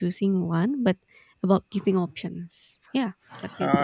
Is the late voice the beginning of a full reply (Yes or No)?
Yes